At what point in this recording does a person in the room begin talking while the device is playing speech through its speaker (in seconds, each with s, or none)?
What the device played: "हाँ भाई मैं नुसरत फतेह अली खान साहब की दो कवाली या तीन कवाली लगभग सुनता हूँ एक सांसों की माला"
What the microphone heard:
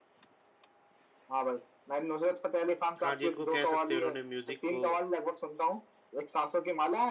3.0 s